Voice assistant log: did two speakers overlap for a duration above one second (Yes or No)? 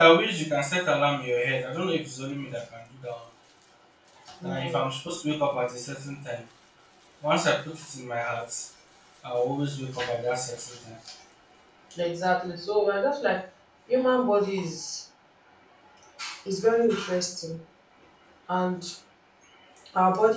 No